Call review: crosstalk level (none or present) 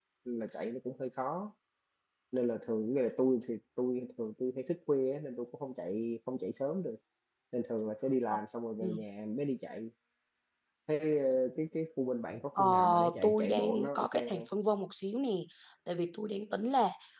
present